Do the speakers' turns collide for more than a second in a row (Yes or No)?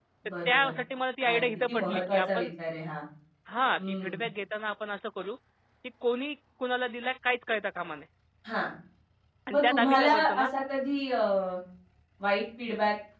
Yes